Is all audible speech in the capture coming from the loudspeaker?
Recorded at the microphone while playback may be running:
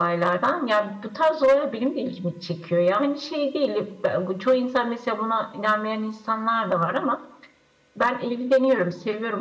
Yes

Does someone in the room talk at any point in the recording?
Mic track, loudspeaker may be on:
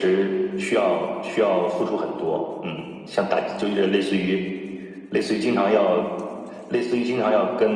No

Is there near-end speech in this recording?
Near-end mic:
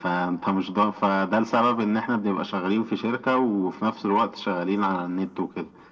No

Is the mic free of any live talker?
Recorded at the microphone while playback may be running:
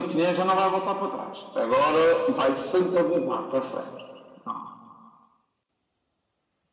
Yes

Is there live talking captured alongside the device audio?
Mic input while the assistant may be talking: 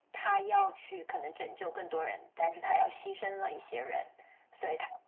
No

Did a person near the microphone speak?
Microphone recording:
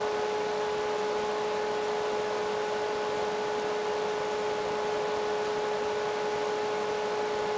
No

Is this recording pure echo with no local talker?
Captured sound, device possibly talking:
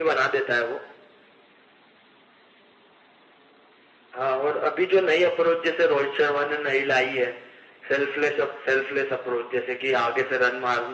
Yes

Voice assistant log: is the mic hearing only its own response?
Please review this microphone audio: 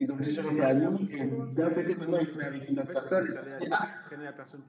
No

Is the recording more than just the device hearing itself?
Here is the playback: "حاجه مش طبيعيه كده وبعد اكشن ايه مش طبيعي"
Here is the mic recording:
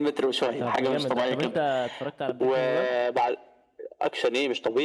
Yes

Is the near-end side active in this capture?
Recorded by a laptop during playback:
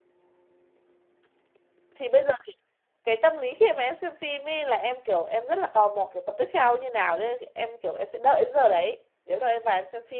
Yes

